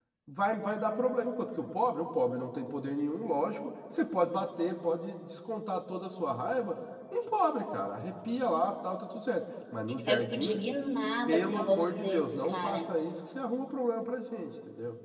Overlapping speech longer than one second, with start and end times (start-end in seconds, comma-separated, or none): 11.3-12.9